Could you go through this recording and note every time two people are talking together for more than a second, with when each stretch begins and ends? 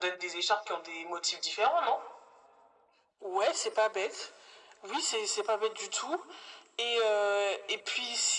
none

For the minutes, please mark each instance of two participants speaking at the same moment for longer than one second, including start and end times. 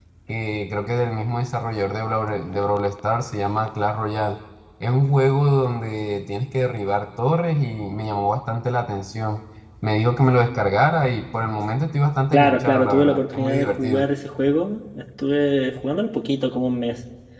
12.3-14.1

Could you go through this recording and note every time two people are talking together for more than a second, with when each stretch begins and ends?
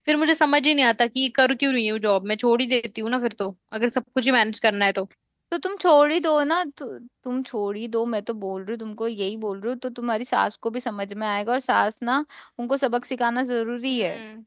none

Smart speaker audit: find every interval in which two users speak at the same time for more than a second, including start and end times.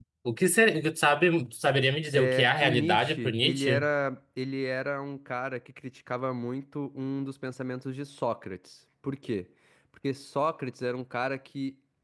2.1-3.9

